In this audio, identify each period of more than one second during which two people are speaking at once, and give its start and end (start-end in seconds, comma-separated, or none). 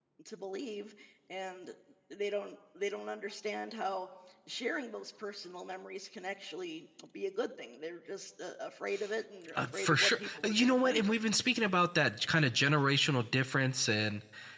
9.6-11.0